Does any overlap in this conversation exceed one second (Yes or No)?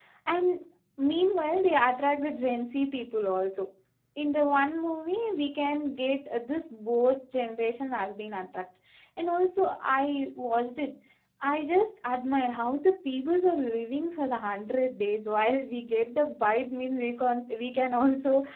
No